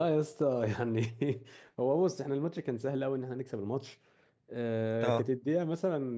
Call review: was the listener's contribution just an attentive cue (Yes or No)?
Yes